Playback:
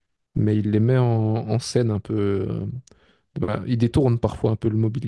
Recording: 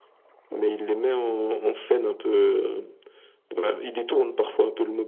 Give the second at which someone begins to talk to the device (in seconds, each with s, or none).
none